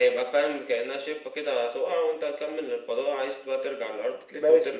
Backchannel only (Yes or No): No